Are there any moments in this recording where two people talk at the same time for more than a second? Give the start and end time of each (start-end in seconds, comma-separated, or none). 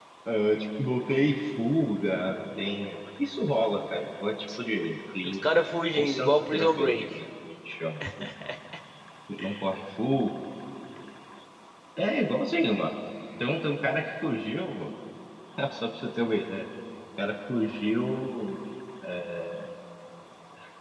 5.2-7.0